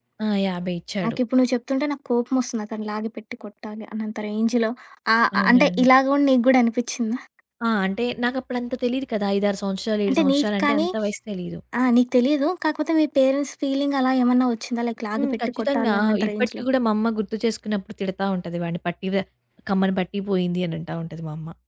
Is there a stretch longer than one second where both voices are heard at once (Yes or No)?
Yes